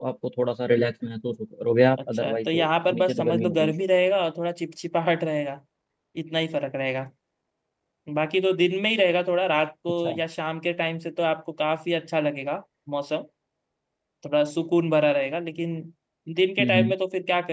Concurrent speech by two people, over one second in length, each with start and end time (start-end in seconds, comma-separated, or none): 2.1-3.7